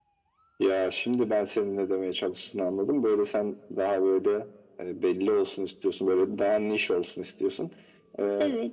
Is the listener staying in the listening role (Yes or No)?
Yes